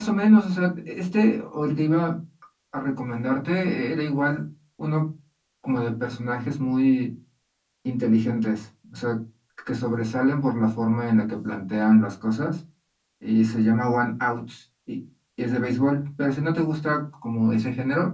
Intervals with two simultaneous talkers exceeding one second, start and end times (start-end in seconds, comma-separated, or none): none